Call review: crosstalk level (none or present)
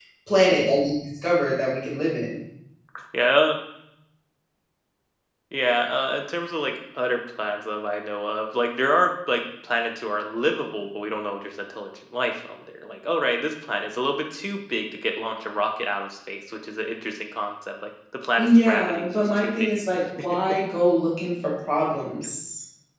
present